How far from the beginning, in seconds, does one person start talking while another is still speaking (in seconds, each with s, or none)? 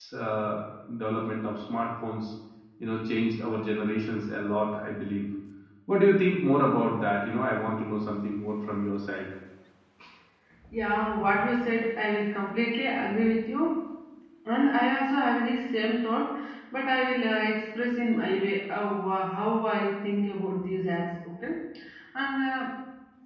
none